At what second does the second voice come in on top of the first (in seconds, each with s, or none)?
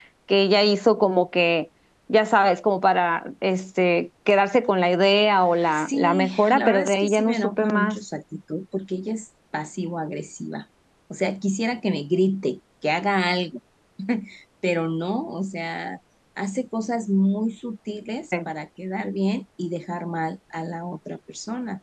5.5 s